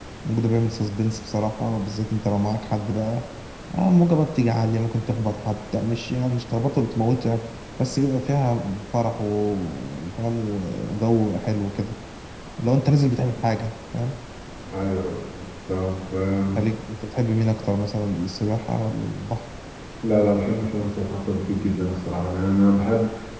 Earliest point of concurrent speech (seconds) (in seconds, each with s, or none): none